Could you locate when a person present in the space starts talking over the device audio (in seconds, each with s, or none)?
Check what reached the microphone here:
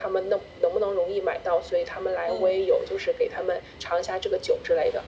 2.2 s